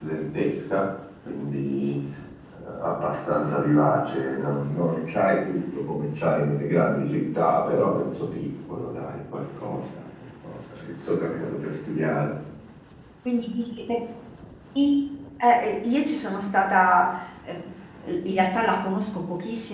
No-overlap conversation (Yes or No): Yes